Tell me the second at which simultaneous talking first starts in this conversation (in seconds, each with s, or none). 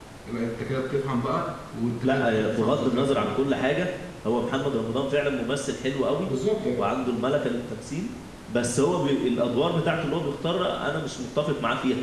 2.0 s